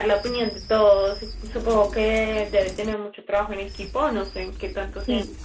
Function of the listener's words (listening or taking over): taking over